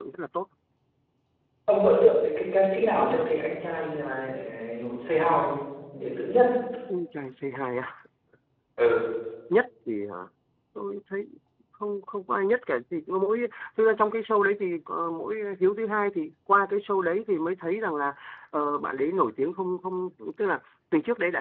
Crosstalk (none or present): none